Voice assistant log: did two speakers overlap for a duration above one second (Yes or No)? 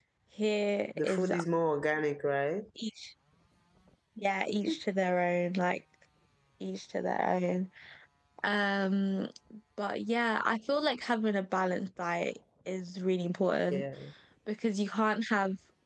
No